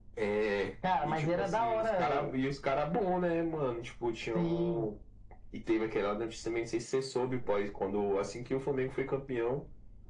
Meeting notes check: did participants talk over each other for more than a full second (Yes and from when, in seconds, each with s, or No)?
Yes, from 1.0 s